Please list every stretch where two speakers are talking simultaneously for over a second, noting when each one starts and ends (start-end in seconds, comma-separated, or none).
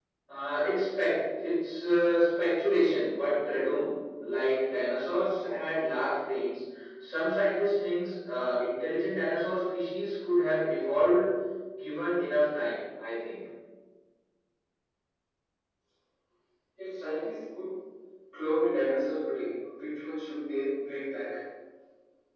none